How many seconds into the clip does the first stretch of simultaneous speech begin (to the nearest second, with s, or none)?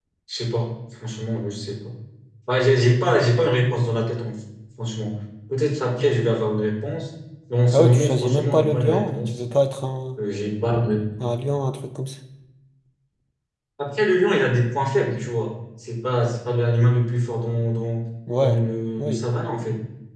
8 s